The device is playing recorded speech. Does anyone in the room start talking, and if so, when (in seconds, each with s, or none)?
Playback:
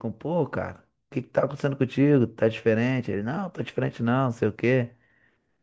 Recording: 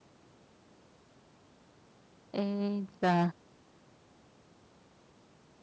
2.3 s